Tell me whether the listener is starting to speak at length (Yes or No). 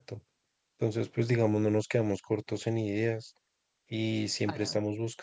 No